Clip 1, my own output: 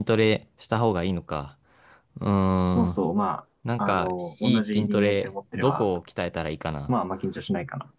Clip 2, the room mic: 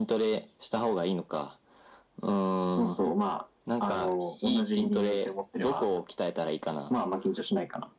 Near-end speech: none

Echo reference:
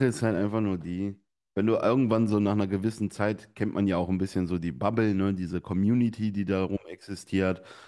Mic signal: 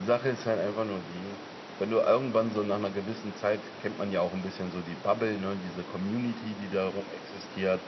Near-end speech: none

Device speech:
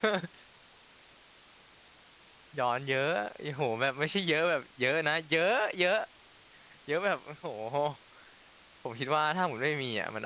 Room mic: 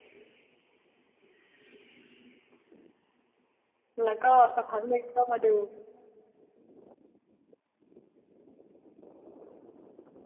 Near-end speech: present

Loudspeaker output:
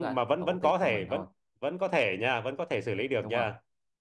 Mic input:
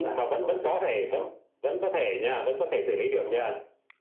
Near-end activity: none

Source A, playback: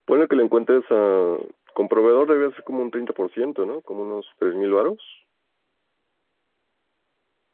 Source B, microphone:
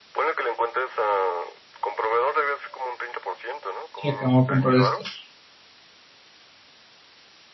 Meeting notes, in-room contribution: present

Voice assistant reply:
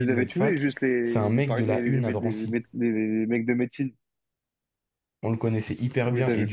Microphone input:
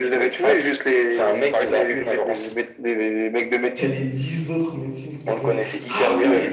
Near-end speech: present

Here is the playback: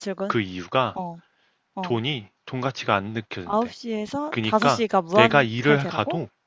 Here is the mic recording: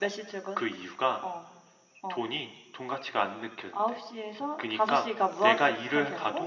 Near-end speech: none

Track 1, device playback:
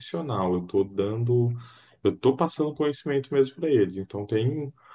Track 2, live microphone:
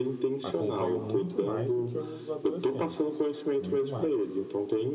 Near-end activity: present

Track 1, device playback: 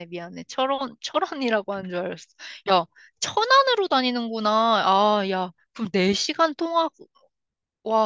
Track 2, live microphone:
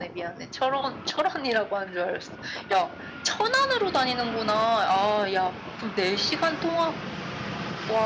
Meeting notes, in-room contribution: none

